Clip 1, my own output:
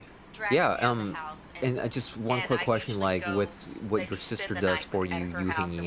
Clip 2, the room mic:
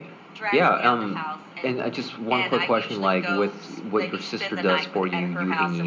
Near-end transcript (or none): none